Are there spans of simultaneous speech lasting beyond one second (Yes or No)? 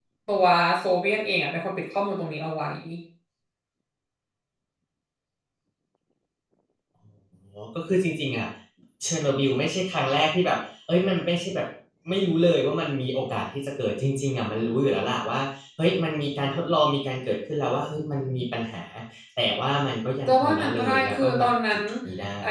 Yes